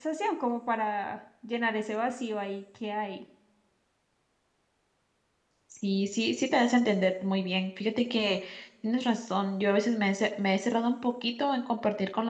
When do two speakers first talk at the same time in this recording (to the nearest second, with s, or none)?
none